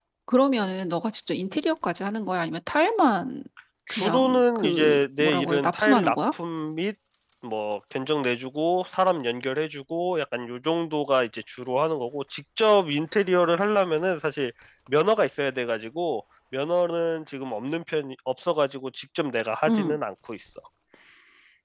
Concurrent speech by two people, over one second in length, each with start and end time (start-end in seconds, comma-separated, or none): 3.9-6.2